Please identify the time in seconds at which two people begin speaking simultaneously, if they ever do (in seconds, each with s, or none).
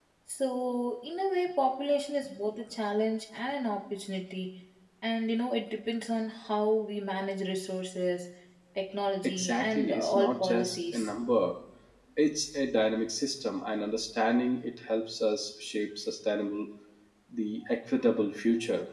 9.2 s